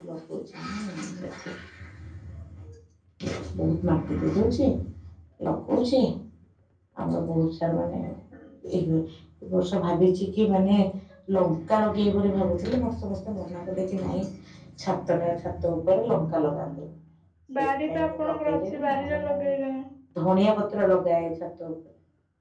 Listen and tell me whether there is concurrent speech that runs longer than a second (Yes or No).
Yes